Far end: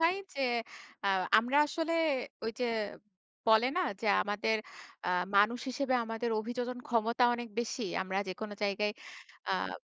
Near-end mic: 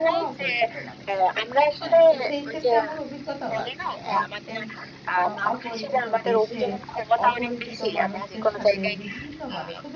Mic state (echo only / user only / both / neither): both